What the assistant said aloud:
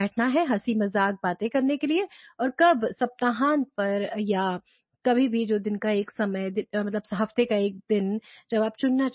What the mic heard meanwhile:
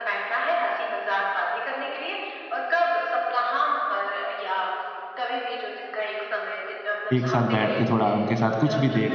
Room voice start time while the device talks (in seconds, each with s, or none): 7.1 s